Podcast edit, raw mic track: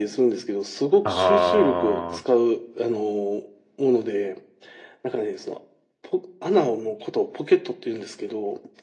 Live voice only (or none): ああ、